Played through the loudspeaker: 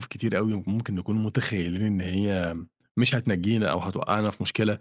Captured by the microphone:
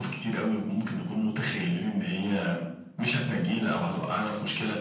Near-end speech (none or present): none